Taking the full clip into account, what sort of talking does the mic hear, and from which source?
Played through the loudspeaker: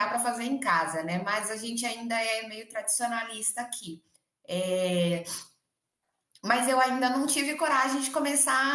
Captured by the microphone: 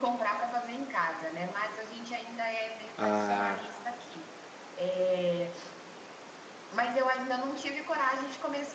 both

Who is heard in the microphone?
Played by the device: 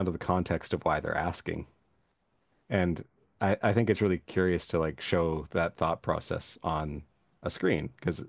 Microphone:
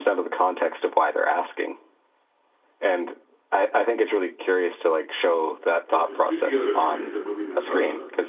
both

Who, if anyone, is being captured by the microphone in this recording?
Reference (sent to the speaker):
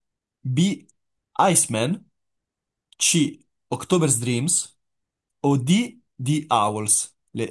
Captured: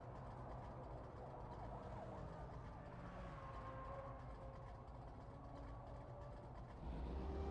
neither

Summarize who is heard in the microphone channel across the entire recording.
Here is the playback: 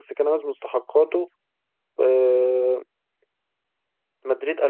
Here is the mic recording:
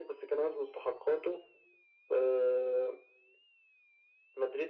echo only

